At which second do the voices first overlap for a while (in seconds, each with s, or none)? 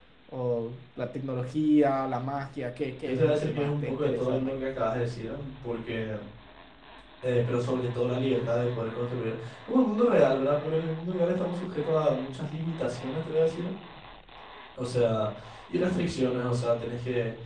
3.0 s